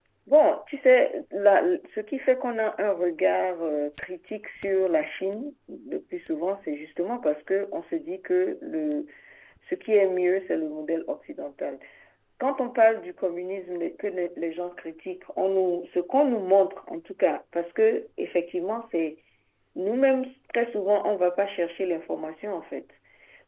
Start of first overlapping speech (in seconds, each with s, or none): none